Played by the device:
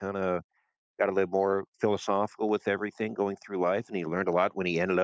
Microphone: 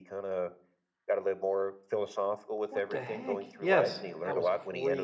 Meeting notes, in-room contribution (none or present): present